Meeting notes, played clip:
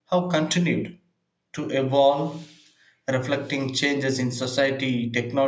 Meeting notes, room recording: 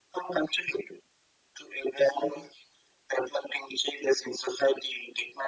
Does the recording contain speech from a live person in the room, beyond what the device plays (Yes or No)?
No